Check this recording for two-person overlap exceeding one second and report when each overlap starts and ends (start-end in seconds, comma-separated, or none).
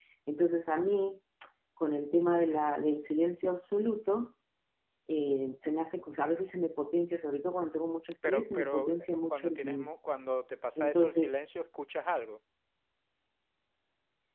8.3-9.9